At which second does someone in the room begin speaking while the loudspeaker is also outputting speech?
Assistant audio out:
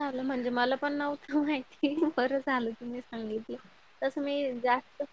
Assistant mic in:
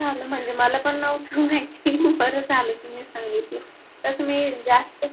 none

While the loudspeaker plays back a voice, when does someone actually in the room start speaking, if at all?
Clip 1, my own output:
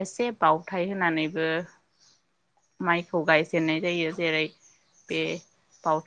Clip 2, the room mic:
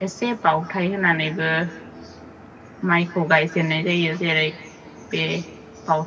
none

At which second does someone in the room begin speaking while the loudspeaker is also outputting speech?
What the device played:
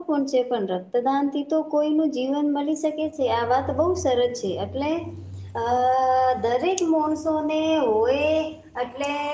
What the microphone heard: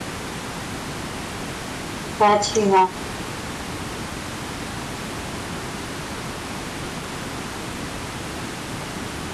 2 s

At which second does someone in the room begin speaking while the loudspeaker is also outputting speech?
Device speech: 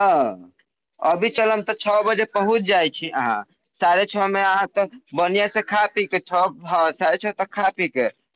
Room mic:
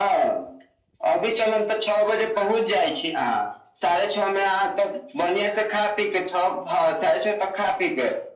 none

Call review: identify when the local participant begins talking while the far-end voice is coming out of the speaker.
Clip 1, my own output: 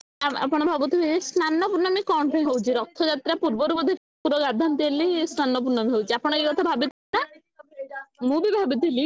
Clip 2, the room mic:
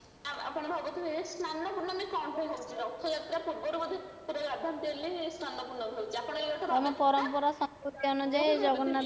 7 s

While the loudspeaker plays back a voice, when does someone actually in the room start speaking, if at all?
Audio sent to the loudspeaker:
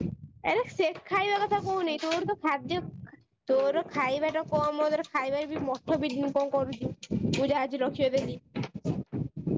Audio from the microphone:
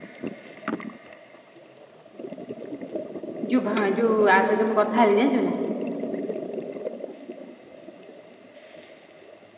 4 s

